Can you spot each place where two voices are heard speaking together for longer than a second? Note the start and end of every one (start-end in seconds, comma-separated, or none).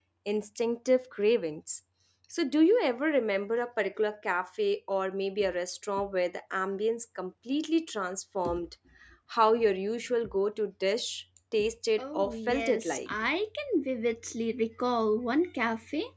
12.0-13.3